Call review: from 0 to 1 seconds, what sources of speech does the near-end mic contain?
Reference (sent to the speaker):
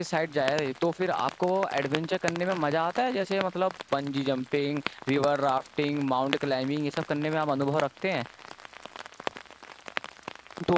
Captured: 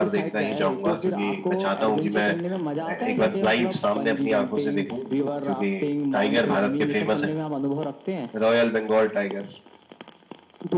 both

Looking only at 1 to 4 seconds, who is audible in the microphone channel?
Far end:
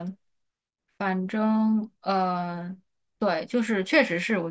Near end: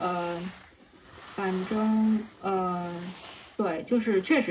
echo only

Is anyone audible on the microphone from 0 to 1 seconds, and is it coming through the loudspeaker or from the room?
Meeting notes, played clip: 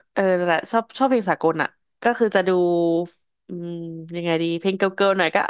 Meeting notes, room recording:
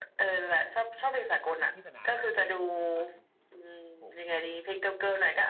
echo only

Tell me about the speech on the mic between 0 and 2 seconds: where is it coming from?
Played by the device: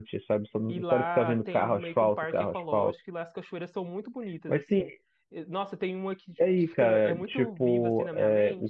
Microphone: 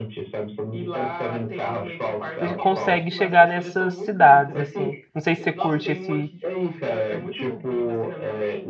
echo only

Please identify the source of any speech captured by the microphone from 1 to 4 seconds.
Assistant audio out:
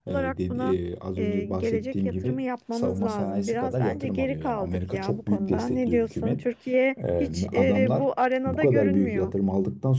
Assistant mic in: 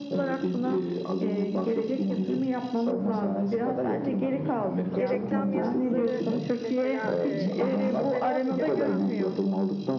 echo only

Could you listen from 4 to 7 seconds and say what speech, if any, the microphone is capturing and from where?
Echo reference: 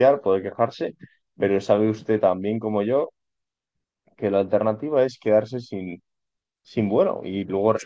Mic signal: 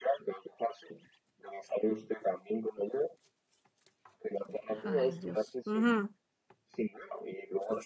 both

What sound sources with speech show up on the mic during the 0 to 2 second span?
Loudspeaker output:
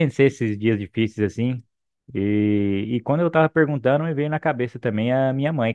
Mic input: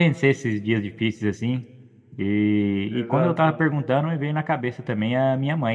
echo only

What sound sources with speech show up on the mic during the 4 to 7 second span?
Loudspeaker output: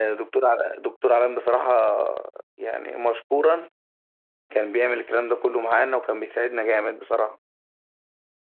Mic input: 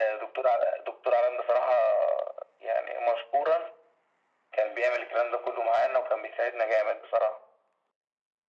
echo only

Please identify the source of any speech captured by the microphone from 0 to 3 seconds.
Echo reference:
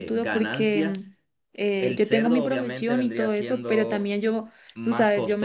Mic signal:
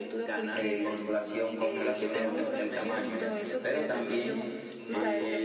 both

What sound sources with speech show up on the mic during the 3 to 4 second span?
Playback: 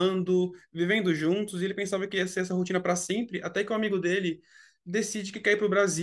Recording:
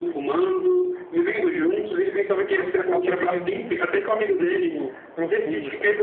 both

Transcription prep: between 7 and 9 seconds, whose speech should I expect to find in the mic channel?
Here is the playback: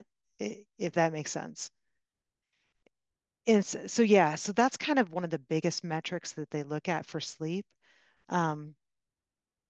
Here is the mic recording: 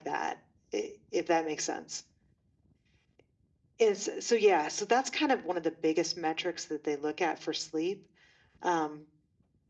echo only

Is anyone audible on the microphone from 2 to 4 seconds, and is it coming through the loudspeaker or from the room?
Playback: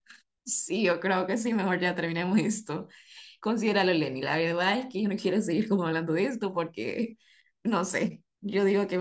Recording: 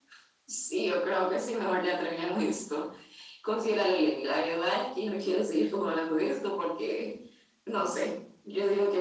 echo only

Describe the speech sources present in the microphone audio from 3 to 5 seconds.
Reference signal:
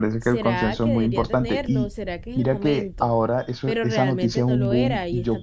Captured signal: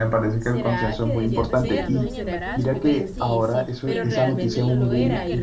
both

